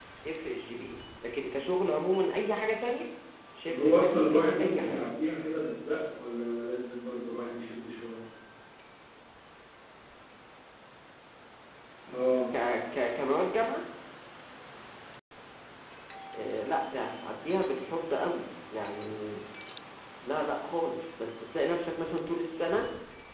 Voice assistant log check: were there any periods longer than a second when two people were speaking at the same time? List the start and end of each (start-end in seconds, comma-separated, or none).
3.7-5.0